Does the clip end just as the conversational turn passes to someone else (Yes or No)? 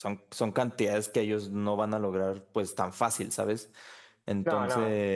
No